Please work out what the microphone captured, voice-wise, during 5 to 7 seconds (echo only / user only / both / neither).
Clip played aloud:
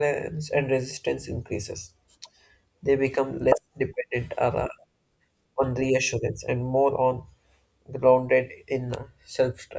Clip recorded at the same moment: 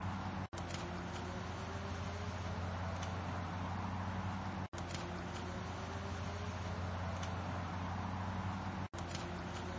neither